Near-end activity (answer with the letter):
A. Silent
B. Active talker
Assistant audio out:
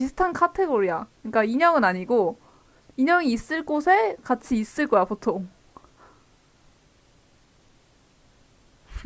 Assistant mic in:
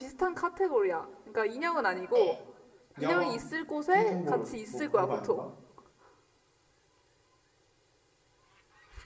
B